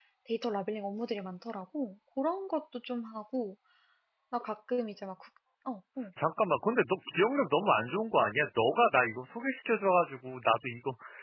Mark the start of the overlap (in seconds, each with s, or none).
none